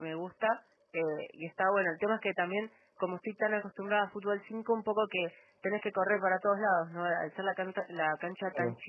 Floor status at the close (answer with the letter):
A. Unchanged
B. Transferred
A